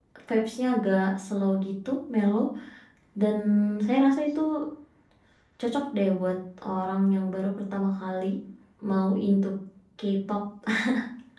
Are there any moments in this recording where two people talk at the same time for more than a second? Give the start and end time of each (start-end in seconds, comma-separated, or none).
none